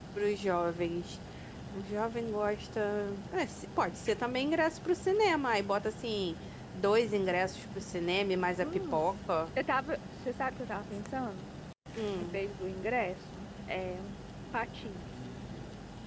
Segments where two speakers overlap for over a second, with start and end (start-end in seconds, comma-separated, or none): none